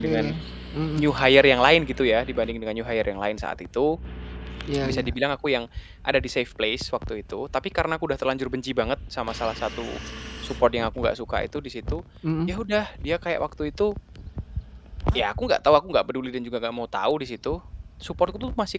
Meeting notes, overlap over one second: none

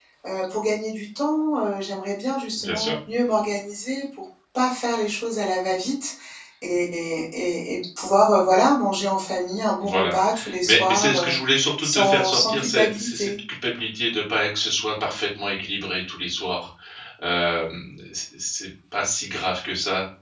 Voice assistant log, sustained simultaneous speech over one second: present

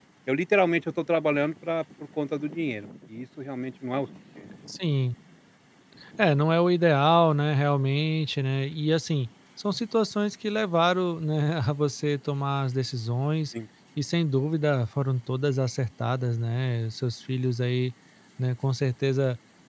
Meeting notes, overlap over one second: none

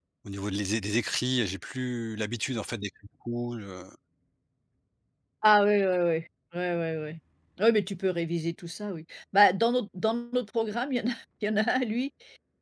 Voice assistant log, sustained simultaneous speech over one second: none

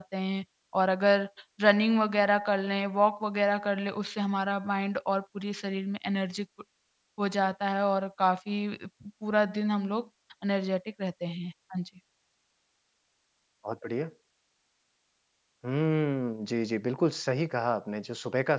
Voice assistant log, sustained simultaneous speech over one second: none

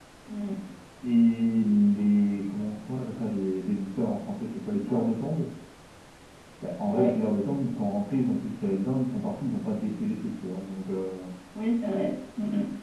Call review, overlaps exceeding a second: none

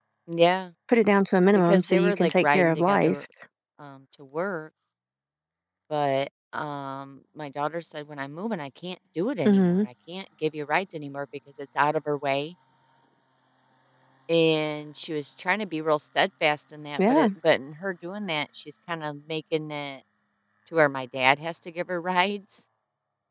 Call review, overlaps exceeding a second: present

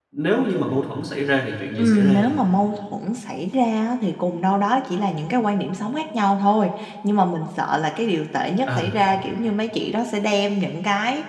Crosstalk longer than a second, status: none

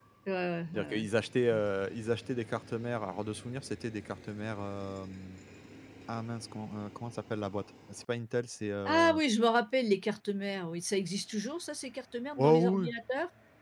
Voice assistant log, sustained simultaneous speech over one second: none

